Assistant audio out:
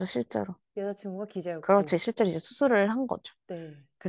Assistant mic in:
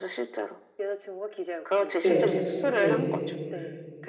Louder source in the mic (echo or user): user